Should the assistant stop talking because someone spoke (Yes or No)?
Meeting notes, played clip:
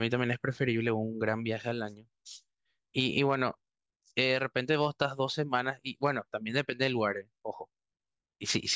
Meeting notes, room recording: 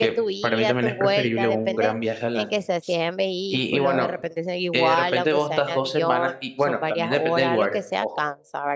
Yes